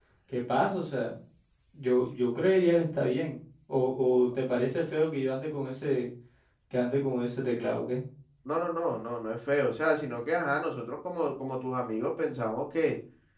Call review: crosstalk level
none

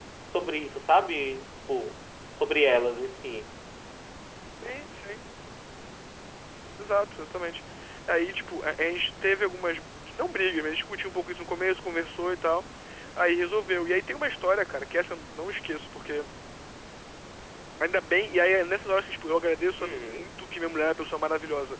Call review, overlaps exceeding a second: none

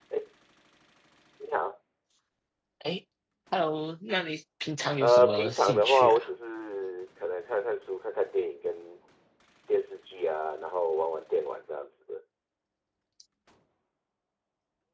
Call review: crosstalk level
present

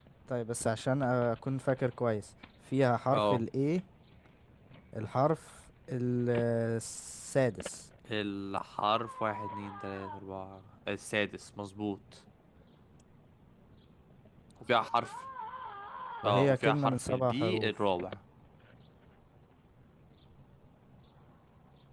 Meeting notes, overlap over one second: present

